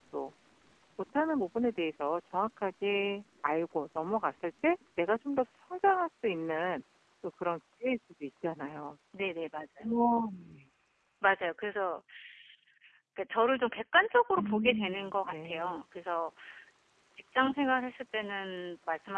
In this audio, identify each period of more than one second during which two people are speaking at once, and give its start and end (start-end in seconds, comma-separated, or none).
14.3-15.8